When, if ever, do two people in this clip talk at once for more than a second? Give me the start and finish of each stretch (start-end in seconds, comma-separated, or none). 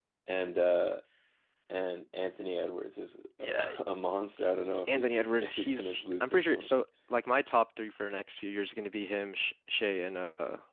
4.9-6.7